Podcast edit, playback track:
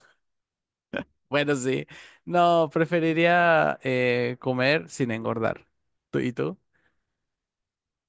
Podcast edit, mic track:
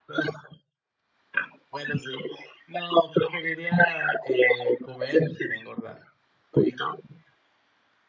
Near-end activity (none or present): none